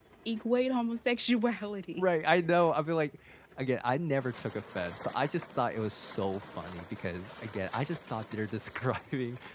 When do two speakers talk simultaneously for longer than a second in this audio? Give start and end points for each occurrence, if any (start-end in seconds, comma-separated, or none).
none